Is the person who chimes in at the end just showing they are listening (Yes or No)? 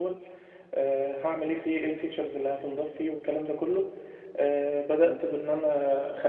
Yes